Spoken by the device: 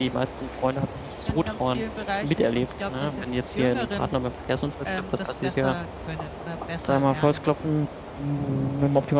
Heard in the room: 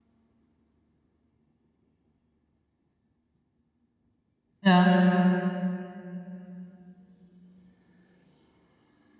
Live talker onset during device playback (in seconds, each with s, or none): 4.6 s